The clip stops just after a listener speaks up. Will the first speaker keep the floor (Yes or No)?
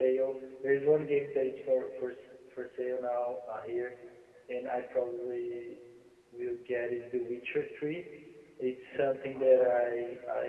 Yes